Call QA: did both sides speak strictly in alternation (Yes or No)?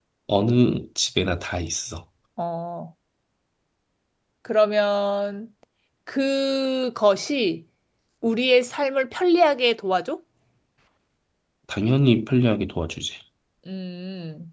Yes